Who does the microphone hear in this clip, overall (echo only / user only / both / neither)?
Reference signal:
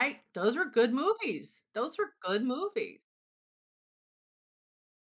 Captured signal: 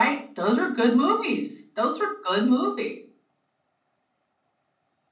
echo only